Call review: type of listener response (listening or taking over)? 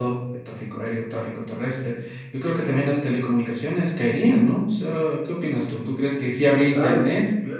taking over